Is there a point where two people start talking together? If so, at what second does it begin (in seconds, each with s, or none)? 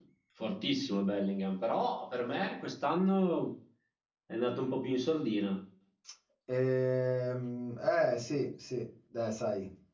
none